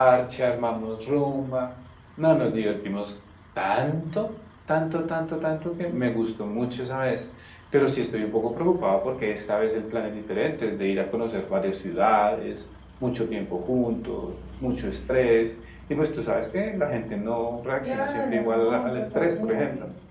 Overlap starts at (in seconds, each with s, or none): 17.8 s